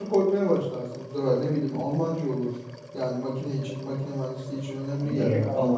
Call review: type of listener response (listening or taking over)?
taking over